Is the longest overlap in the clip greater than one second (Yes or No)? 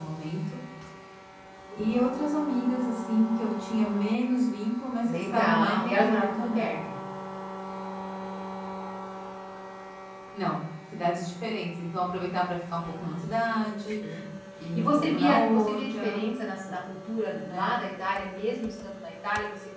Yes